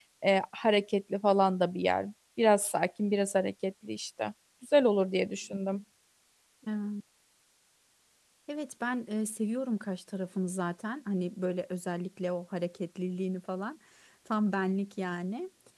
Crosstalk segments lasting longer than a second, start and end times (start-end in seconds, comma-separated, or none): none